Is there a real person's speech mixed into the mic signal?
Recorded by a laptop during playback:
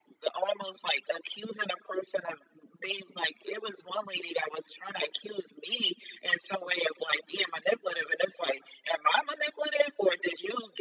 No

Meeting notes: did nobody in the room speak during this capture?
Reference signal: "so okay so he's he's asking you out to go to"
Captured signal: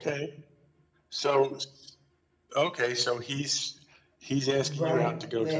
No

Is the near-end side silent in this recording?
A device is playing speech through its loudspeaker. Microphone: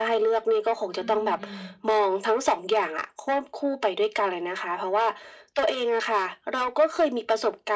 No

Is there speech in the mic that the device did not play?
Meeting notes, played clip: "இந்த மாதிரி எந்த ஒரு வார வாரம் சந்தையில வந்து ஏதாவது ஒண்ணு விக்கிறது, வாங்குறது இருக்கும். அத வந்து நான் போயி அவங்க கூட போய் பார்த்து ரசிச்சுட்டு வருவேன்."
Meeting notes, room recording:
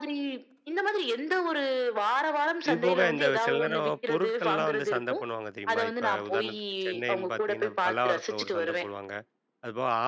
Yes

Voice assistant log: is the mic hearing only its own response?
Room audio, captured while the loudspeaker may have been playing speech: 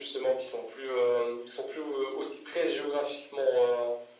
Yes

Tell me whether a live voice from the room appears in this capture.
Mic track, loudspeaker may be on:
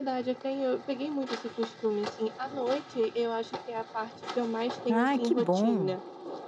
Yes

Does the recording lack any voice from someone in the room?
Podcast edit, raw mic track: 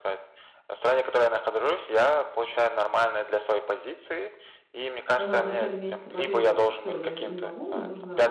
No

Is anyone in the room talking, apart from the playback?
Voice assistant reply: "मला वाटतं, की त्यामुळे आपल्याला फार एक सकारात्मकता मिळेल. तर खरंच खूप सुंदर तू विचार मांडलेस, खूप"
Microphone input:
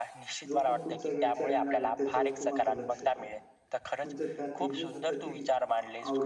Yes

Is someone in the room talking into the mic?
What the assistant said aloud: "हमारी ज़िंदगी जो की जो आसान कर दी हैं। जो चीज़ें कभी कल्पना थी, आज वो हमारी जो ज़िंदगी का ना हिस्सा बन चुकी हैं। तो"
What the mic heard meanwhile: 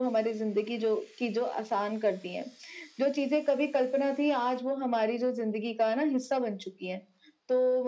No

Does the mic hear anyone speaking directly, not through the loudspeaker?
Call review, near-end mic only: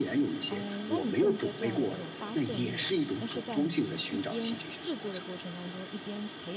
Yes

